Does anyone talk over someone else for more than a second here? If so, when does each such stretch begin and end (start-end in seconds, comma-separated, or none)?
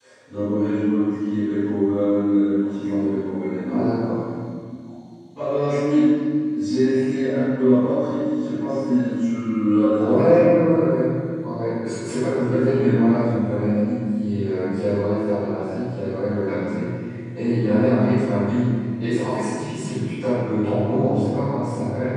none